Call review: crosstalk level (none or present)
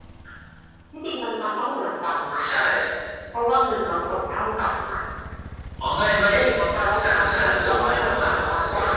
present